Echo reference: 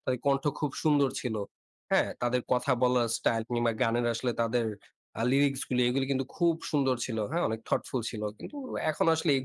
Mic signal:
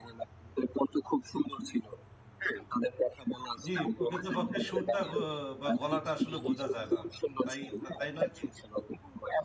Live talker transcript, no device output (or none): জি, প্রকৃতপক্ষে সুরটা ক বা, গলাটা আসলে বোঝা যায় না। উ তাই তাই নয় কি?